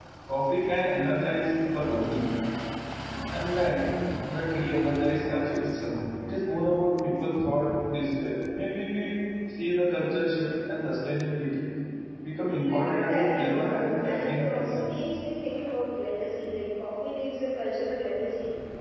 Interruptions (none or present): present